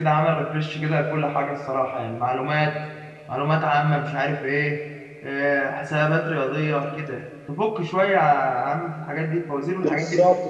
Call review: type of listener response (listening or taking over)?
taking over